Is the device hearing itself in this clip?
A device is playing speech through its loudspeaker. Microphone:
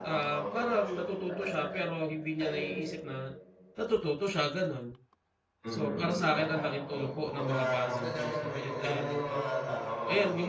Yes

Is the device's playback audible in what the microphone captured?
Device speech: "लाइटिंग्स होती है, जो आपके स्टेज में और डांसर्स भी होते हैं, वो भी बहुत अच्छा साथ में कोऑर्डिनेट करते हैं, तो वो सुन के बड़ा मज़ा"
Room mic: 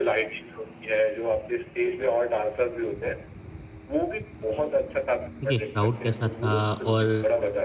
Yes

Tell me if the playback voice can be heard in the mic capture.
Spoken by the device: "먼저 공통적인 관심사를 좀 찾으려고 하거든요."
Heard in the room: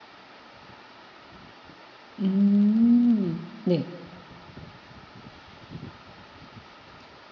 No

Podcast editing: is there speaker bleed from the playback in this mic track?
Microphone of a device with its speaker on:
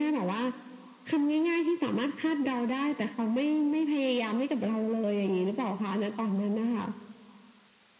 Yes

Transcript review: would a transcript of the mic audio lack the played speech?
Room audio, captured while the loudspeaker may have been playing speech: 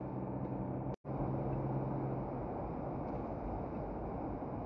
Yes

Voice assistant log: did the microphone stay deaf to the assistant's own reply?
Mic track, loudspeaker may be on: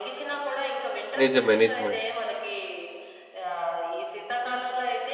No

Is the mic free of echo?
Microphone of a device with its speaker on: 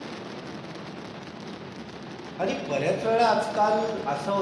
Yes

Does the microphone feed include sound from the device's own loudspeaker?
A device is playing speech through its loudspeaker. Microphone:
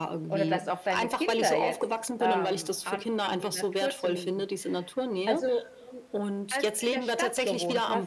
Yes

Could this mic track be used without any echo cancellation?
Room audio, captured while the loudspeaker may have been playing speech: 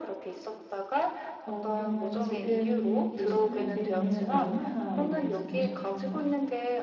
No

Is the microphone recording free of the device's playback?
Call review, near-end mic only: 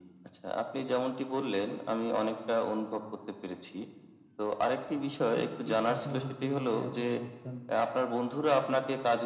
No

